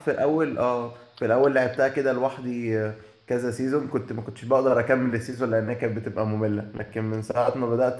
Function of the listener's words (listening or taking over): listening